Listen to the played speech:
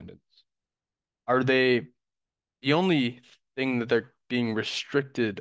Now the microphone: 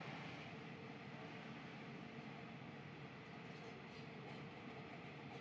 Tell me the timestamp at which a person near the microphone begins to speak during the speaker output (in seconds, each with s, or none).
none